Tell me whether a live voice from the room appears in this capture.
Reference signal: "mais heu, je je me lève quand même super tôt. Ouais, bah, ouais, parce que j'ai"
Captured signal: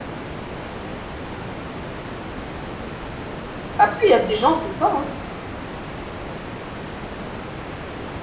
Yes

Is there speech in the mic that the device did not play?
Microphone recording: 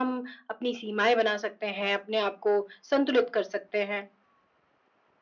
No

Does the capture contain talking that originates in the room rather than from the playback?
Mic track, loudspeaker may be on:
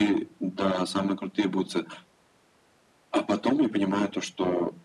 No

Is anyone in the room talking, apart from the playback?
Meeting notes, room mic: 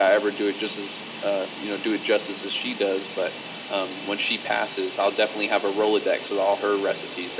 No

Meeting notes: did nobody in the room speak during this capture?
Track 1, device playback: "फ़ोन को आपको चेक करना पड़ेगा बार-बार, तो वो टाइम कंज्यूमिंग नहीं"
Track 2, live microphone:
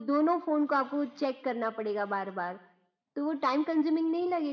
Yes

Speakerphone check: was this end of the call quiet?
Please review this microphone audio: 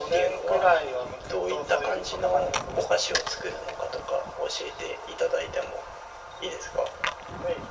Yes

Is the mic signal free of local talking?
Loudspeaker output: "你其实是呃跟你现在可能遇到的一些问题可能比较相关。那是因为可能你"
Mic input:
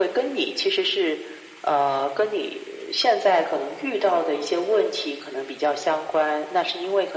Yes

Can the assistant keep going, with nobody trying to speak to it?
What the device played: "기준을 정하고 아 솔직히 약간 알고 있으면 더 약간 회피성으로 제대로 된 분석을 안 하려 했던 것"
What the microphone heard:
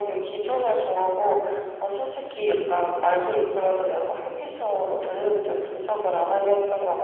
Yes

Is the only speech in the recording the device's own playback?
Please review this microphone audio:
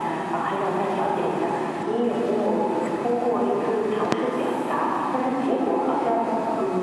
Yes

